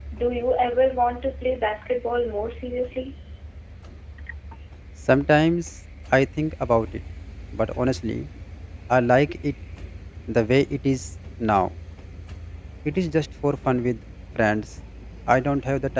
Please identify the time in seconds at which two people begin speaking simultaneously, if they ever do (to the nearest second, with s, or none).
none